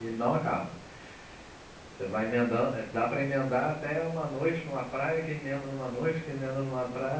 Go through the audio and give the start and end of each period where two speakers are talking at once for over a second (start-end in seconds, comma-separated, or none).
none